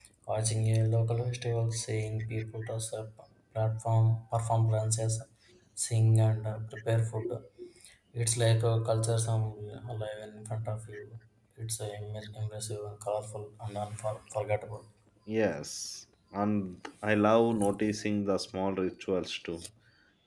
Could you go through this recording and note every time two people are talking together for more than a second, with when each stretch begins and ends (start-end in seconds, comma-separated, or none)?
none